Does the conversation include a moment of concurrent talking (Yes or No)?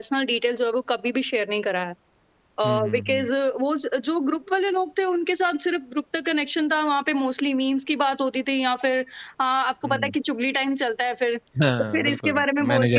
Yes